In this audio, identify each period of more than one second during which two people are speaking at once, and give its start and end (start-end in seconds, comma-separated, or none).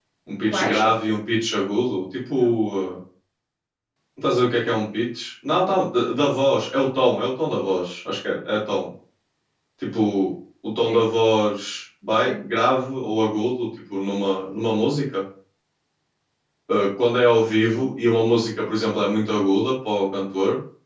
none